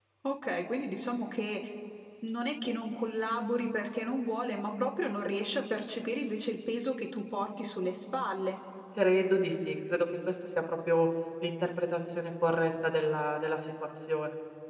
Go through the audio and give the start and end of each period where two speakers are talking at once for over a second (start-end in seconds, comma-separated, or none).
none